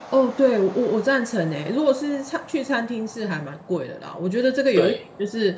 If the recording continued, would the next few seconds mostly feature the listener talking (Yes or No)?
No